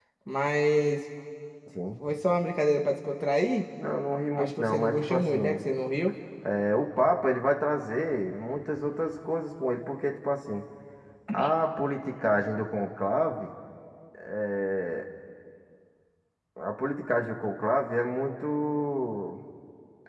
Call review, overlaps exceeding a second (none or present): present